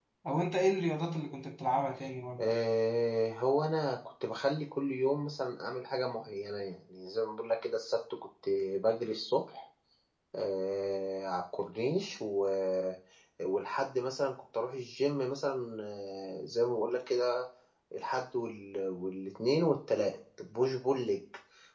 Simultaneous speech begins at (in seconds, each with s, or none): none